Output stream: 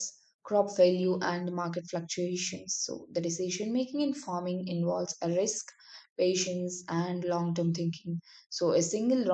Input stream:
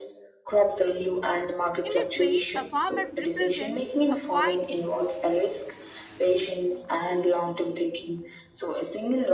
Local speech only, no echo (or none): In this way, a farmer represents a quiet